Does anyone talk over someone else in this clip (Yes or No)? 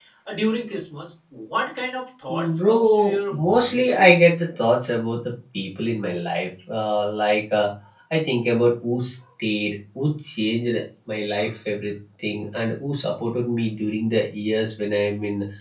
Yes